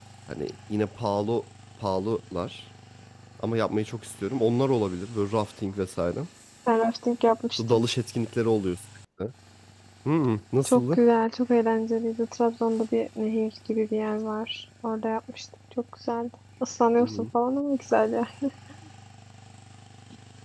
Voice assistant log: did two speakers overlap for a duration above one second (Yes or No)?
No